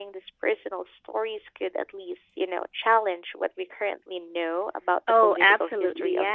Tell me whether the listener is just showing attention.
No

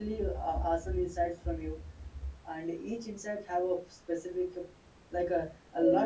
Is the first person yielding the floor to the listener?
No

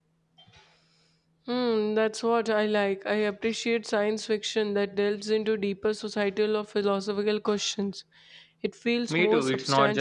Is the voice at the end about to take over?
Yes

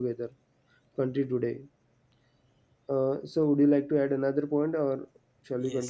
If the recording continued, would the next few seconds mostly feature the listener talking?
Yes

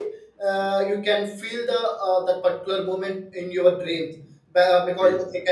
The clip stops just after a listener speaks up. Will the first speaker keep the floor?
Yes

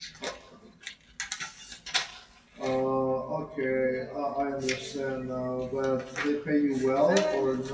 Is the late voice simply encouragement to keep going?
No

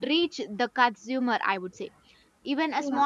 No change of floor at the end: Yes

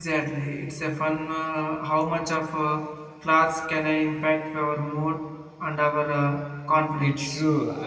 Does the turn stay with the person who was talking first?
No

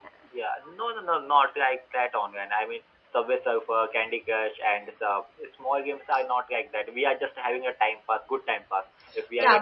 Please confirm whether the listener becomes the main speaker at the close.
Yes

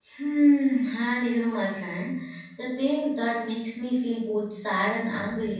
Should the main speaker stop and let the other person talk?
No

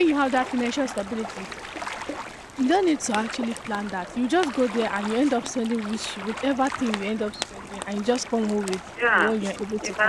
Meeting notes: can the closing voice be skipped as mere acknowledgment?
No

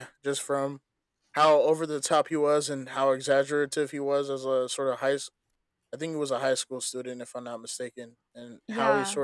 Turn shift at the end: No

